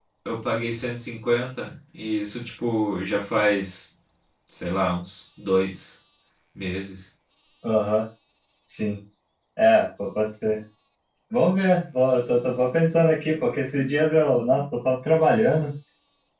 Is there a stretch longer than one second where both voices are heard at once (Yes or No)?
No